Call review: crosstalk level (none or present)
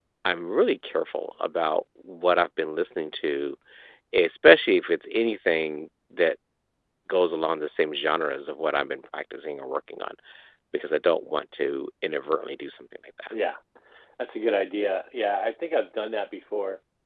none